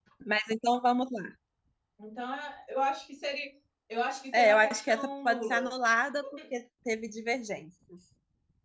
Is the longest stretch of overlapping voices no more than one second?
No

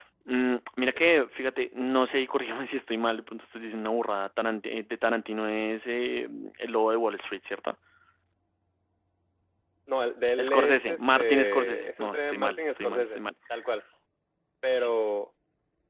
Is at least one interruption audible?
Yes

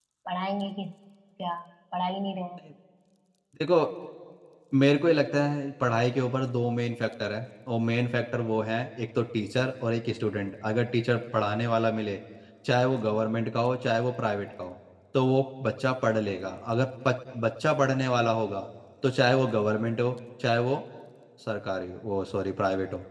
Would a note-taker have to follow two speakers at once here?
No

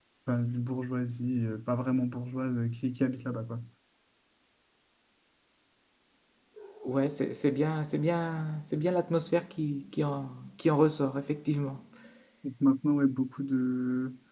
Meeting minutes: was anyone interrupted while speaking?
No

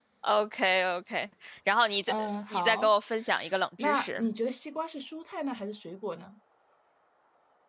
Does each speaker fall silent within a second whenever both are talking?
Yes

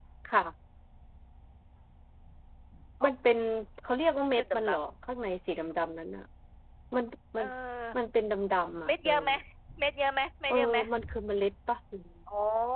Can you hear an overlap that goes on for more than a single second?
No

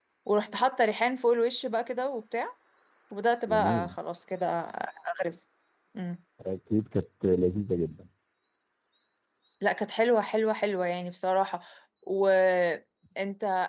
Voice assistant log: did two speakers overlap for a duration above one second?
No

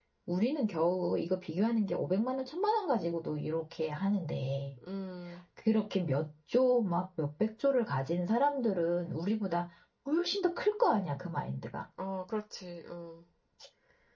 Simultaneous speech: No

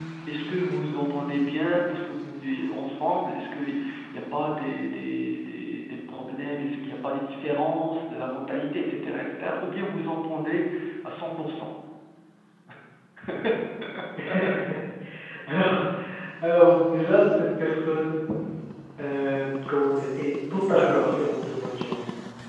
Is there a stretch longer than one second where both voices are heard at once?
No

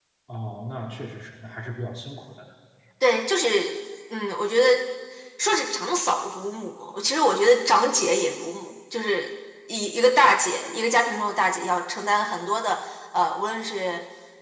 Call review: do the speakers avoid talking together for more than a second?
Yes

